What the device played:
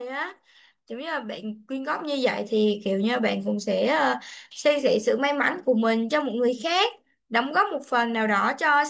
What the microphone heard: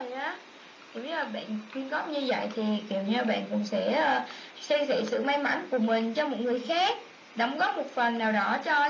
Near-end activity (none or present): none